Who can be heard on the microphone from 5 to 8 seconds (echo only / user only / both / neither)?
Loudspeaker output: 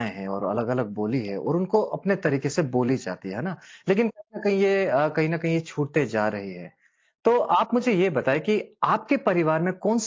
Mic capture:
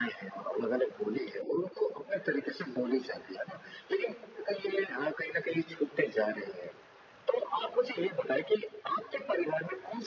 echo only